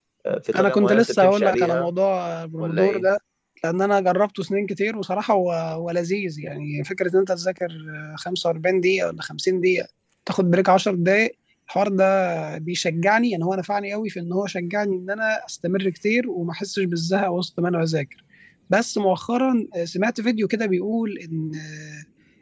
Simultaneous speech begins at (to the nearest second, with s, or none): 1 s